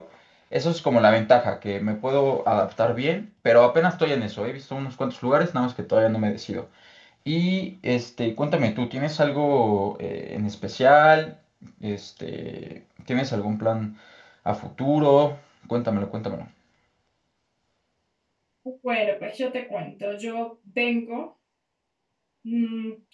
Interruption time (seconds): none

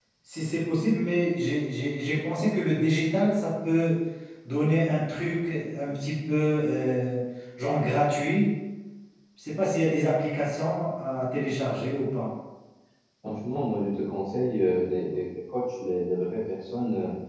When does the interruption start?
none

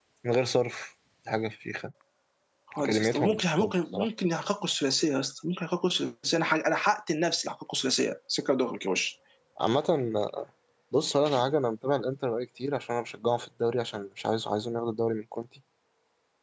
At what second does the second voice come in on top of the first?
2.8 s

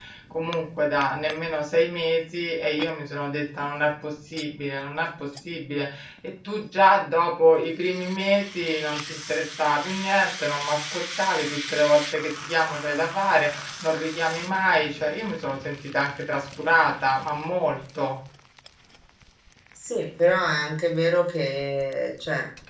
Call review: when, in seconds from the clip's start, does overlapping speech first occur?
none

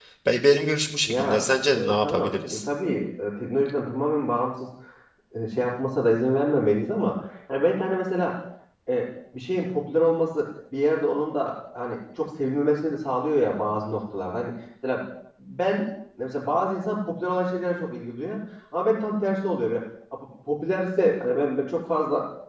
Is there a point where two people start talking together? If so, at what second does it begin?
1.1 s

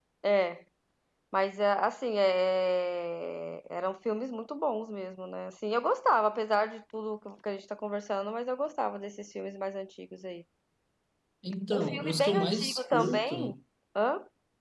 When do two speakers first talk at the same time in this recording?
11.7 s

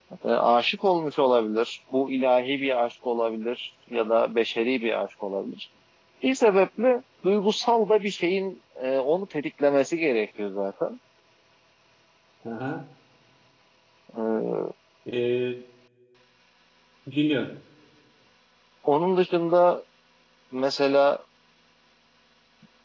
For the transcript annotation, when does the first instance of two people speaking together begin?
none

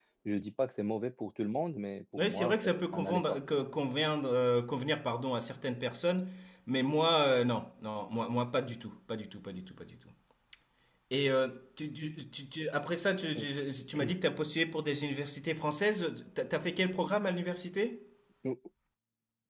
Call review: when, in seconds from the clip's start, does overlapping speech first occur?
2.2 s

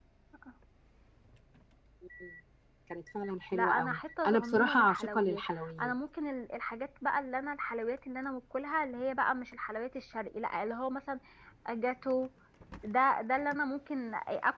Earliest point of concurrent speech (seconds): 3.5 s

